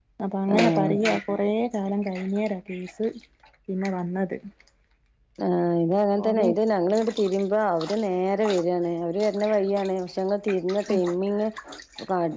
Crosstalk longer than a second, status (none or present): none